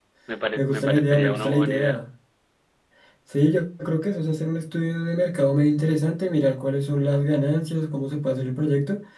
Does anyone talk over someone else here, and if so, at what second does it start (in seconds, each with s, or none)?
0.6 s